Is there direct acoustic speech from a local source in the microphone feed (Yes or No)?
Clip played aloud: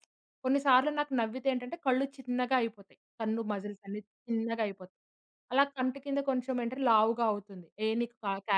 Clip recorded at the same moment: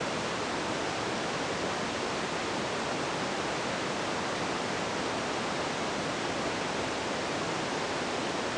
No